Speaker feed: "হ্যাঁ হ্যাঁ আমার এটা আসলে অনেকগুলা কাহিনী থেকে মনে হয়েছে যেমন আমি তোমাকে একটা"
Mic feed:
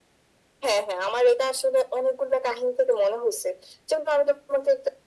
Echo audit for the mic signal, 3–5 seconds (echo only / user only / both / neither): echo only